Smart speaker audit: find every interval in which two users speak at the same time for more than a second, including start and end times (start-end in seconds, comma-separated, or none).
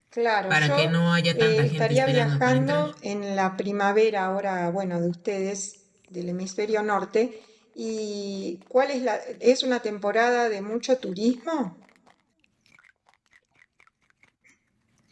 1.3-2.9